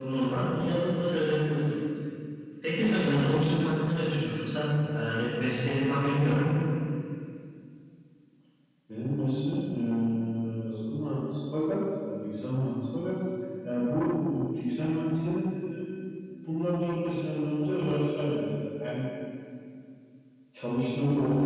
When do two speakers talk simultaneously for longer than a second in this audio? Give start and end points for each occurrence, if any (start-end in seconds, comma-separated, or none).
none